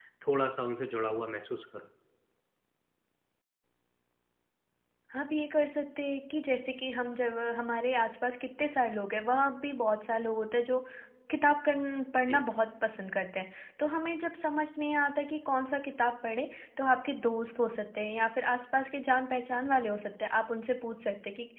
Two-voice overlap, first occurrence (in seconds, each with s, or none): none